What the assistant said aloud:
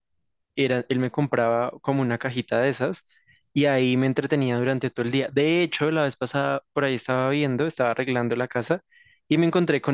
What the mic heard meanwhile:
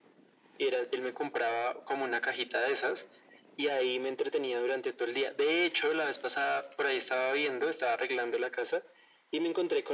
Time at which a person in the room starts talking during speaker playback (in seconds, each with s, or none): none